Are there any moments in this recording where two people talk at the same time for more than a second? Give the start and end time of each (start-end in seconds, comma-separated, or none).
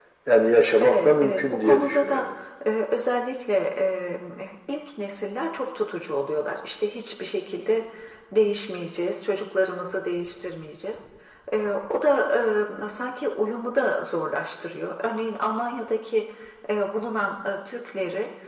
0.8-2.3